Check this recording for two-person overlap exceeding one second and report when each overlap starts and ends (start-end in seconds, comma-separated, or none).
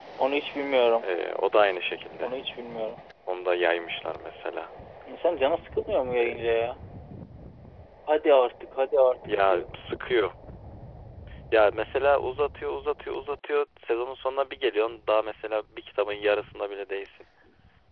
none